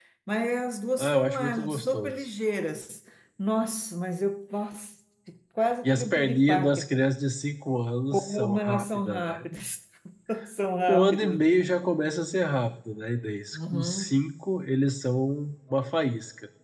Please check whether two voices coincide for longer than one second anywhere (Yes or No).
Yes